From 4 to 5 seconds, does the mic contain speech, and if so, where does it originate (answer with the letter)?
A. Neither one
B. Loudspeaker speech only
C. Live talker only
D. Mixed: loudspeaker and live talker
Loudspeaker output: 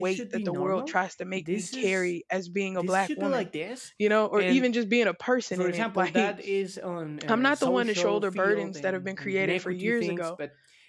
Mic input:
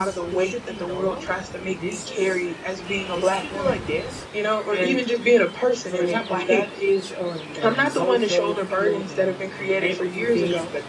B